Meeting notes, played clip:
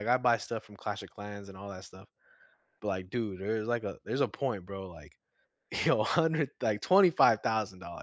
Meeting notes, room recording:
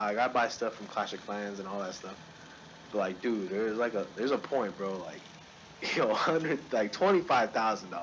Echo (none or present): present